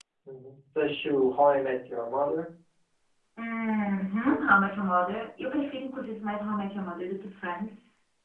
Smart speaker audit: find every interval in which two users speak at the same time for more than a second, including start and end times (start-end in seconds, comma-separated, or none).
none